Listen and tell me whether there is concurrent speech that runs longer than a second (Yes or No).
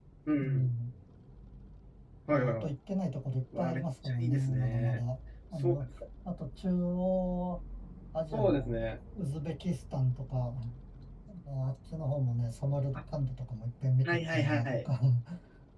Yes